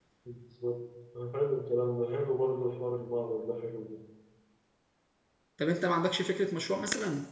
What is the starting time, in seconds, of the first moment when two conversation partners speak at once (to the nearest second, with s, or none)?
none